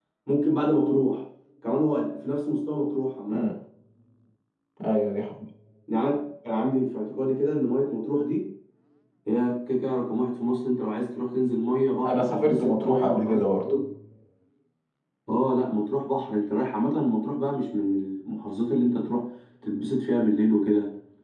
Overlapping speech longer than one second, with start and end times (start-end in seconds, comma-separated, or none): 12.0-13.4